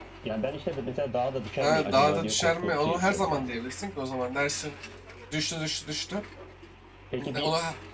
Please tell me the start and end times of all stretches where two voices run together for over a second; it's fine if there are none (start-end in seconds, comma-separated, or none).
1.6-3.6